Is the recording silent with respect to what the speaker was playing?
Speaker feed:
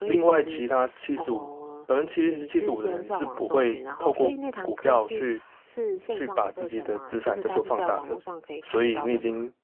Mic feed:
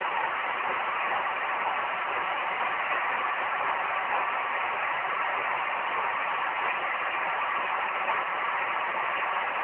Yes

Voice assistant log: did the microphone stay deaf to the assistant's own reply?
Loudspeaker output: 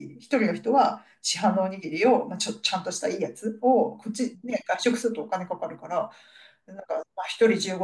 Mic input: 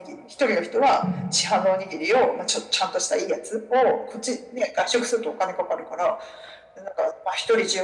No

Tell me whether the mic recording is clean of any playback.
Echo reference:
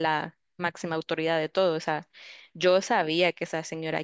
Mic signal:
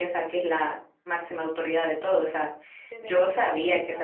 No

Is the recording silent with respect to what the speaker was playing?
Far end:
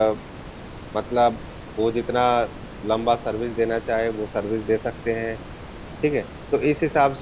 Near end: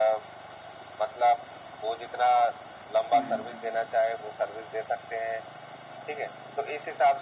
No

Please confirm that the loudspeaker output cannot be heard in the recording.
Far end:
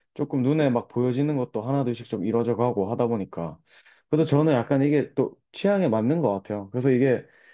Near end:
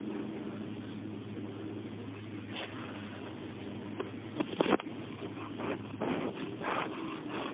Yes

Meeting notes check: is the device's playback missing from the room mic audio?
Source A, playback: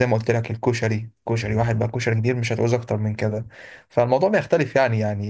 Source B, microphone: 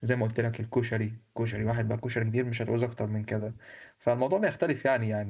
No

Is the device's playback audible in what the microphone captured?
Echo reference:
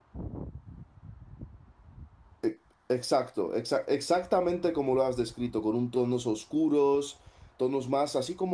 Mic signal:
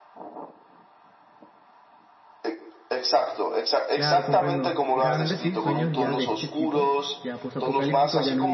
Yes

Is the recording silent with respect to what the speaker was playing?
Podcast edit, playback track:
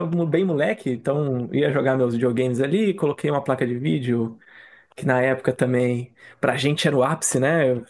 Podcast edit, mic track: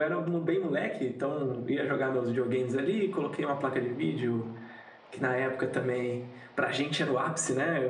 No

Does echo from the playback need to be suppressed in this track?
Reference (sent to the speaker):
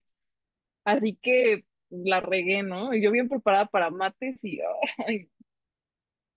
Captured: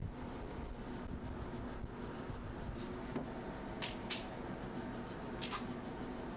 No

